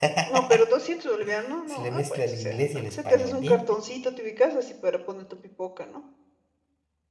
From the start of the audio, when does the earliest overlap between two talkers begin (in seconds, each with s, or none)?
1.7 s